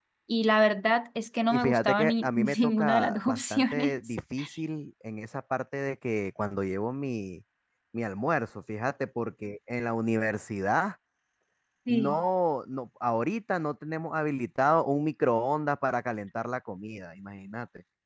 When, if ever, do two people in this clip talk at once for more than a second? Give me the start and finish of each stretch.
1.5-4.0

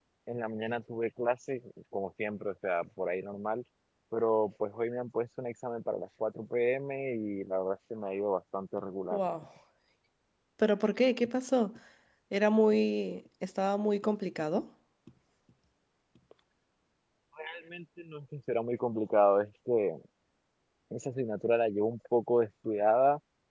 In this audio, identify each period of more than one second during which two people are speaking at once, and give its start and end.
none

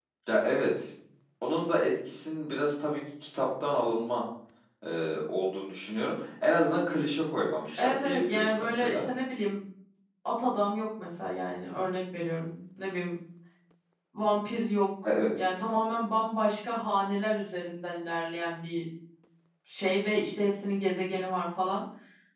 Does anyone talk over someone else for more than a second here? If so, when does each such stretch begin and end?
7.8-9.1

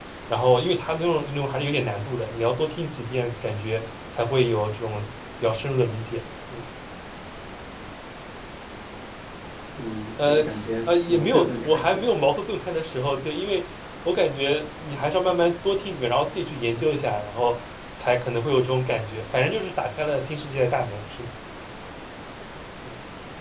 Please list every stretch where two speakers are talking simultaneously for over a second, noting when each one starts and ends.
10.9-12.1

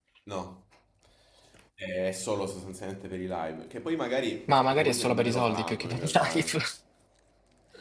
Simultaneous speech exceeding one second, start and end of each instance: 4.5-6.6

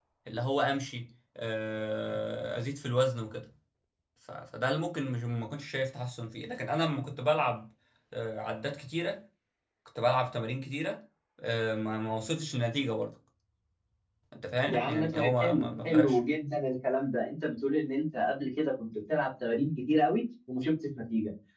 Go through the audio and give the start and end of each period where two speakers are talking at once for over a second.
14.6-16.2

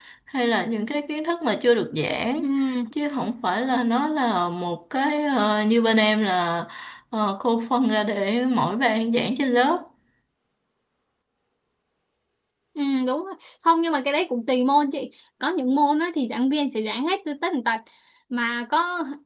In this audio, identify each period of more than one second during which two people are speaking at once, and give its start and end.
none

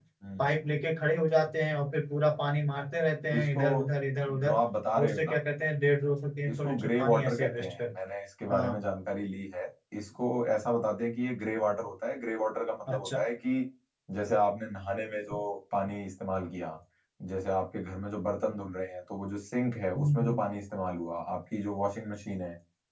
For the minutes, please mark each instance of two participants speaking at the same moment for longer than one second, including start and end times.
6.5-7.8

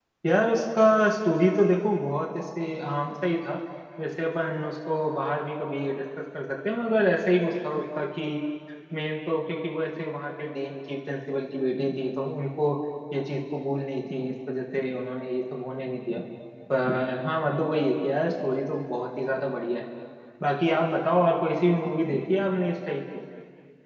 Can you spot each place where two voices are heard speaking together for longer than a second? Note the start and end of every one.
none

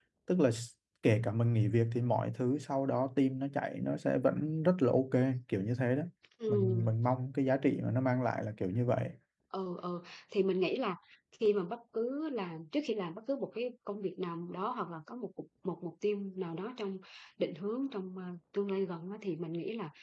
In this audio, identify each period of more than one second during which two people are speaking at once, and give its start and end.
none

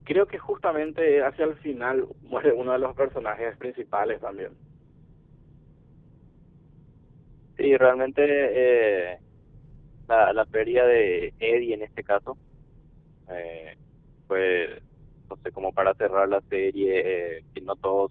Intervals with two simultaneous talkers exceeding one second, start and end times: none

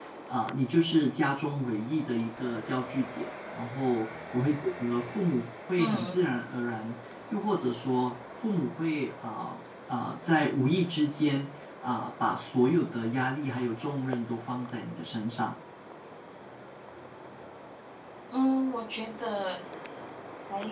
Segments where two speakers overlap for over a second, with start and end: none

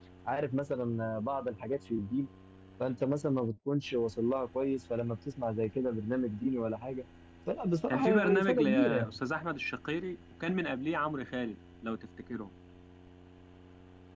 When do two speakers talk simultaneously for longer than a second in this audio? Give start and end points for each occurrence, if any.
7.9-9.2

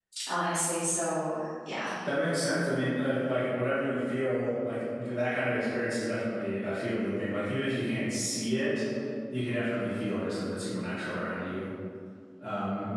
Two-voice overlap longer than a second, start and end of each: none

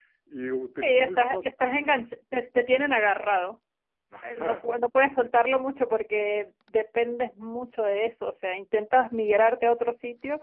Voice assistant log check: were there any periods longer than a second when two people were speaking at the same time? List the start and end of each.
0.8-2.1

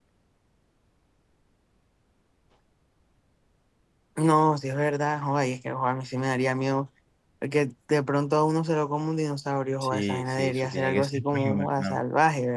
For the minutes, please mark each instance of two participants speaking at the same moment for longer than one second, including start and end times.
9.8-12.0

